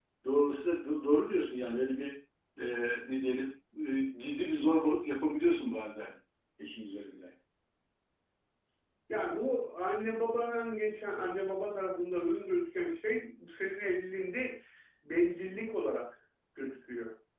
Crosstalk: none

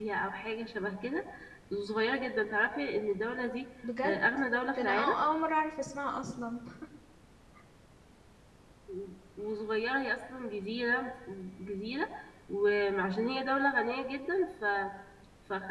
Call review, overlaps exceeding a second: none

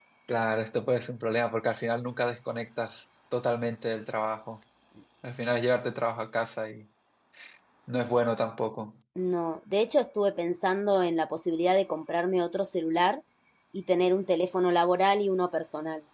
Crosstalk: none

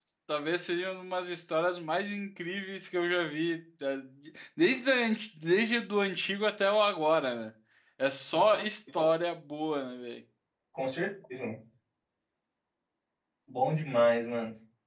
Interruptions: none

